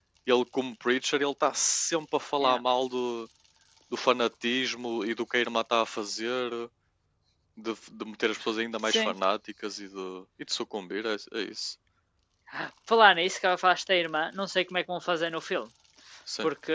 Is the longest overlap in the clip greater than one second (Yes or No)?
No